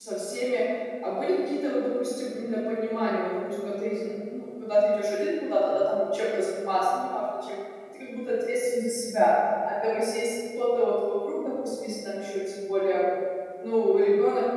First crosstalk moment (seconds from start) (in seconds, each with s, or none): none